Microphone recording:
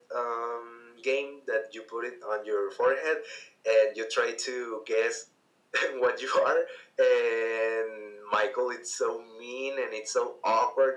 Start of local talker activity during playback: none

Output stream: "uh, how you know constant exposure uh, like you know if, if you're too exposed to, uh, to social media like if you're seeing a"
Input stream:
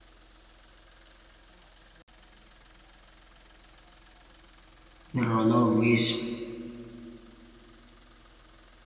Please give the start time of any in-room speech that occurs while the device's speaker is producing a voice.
5 s

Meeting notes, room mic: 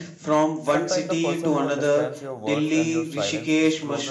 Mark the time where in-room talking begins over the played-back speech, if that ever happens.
1 s

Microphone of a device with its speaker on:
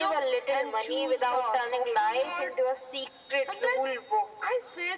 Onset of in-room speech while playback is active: none

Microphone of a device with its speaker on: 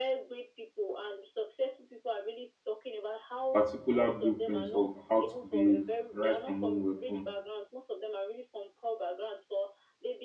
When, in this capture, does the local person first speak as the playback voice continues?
4 s

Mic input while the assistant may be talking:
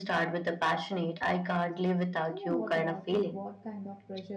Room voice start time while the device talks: 2 s

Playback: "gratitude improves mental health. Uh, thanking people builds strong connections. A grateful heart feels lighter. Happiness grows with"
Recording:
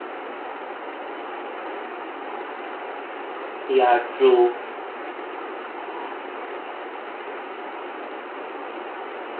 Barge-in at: 4 s

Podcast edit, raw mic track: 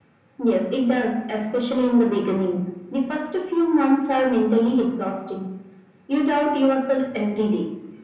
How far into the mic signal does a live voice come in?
none

